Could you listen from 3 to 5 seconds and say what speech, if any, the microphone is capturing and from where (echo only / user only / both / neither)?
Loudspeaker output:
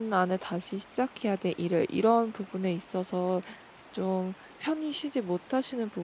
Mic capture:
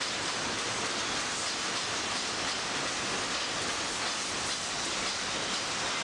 neither